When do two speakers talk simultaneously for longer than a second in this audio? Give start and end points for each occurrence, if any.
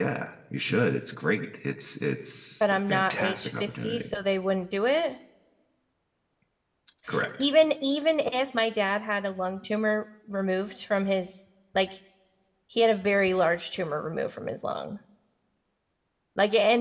2.6-4.1

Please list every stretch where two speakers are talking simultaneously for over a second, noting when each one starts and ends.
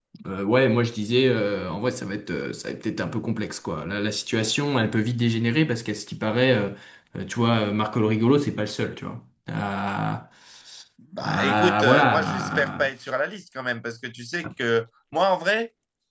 11.2-12.9

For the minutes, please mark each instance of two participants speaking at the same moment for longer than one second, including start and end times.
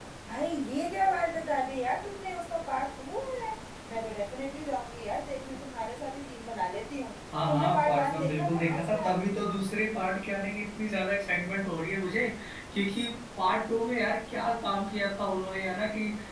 7.5-9.1

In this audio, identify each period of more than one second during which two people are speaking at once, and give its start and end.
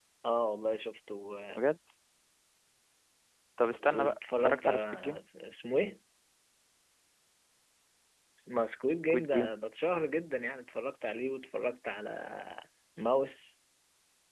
3.9-5.2

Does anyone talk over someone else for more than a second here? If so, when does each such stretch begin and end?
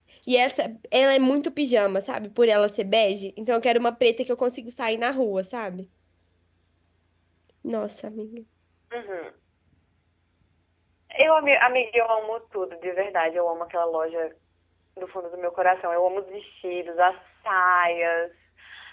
none

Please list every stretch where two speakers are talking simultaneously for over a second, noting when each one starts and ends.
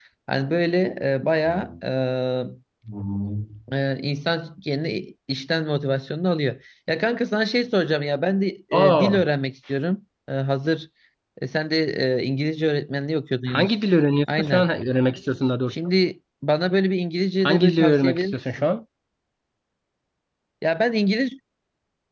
17.4-18.7

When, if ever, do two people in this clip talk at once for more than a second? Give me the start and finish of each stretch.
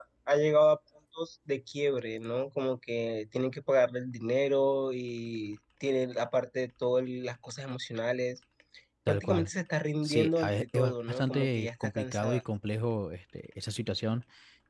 10.0-12.4

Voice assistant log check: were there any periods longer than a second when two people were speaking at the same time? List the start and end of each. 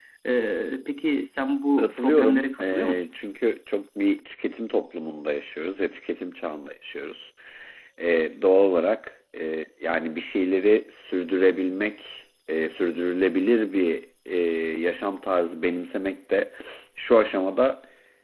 1.8-3.0

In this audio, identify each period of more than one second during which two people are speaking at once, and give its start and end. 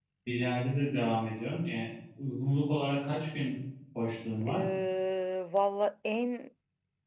none

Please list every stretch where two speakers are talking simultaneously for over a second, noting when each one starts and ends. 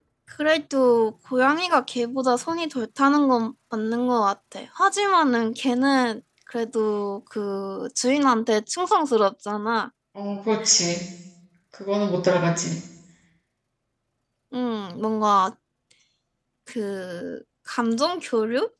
none

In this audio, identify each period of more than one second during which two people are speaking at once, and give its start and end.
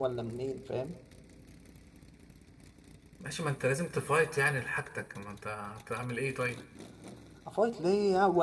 none

